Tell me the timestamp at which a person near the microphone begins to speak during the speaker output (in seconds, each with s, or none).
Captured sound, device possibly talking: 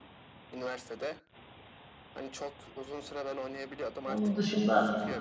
4.0 s